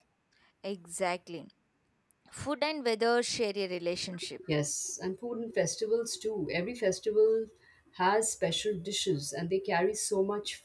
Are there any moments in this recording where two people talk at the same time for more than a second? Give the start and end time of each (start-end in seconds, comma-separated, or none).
none